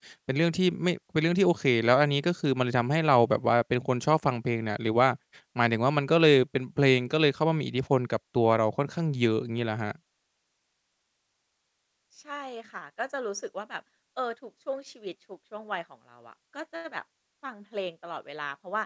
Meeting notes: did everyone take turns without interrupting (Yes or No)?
Yes